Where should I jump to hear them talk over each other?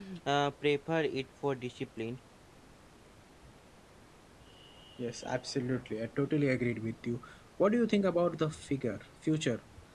none

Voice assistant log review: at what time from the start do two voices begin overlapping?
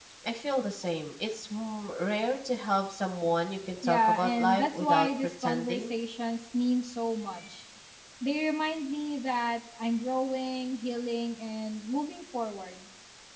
3.8 s

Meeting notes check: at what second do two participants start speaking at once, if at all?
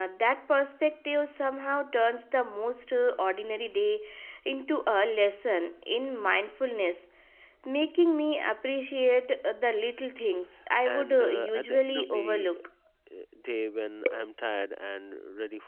10.9 s

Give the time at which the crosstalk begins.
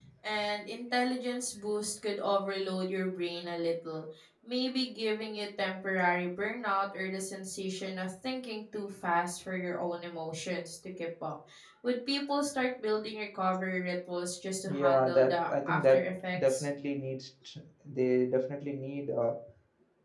14.7 s

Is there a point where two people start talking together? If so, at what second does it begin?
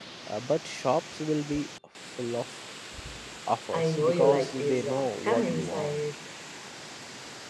3.7 s

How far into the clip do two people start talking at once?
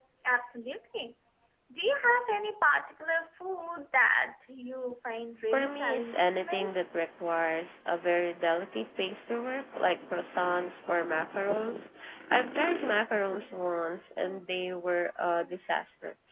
5.5 s

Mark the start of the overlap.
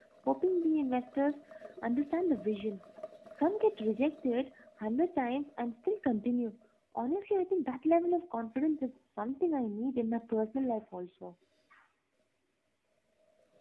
none

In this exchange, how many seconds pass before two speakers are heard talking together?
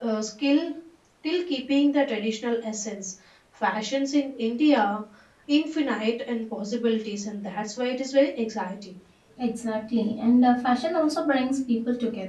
none

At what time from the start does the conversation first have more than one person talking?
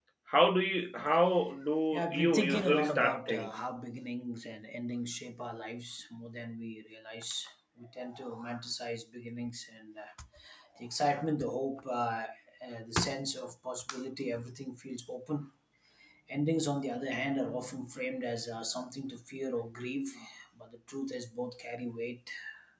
1.9 s

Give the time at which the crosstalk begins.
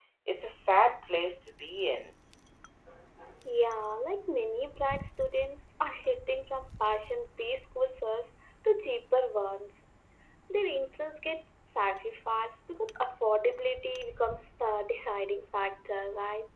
none

